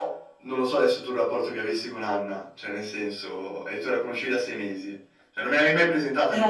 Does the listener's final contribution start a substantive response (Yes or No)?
No